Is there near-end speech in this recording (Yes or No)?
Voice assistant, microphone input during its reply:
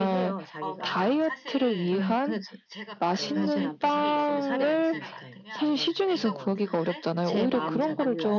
Yes